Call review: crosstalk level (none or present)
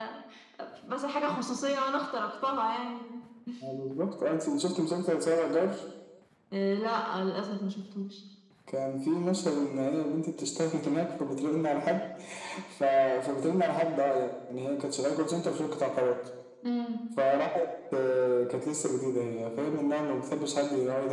none